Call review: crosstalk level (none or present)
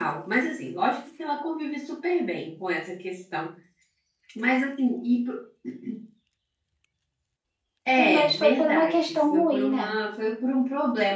present